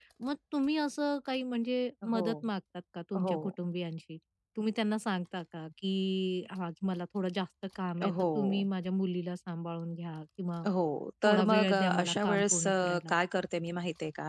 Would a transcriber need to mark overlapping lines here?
Yes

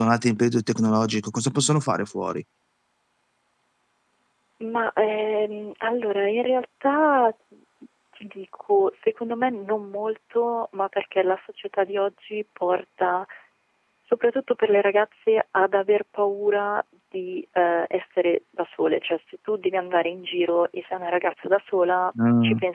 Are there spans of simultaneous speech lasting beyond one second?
No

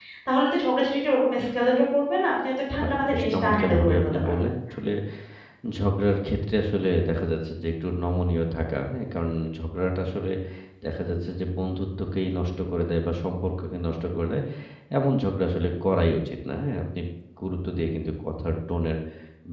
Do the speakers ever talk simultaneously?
Yes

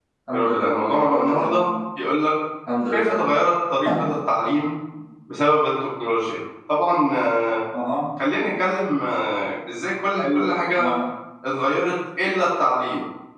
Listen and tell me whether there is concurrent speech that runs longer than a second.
Yes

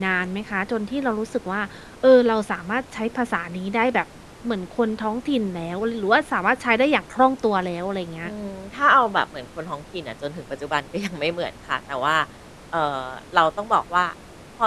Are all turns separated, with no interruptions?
Yes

